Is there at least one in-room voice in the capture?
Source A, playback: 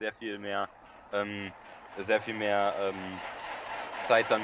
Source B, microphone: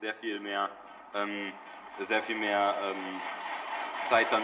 No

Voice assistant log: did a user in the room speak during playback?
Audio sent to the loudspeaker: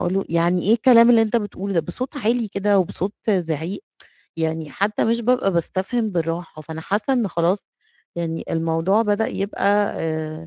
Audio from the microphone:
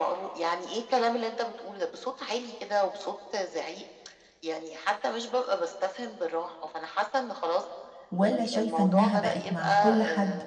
Yes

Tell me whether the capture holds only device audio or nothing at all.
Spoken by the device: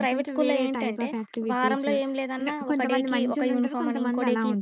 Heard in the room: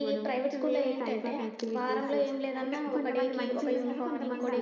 No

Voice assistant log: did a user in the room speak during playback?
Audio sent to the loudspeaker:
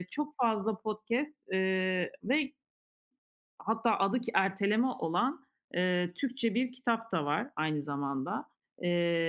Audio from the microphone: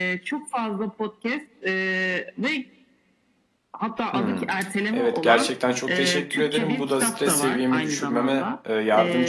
Yes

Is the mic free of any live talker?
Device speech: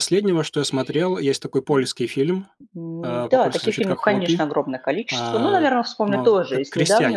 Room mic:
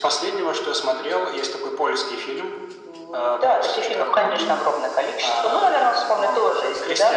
No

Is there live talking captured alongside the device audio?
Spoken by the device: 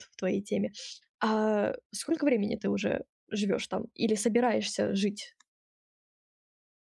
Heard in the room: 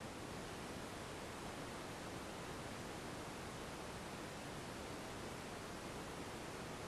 No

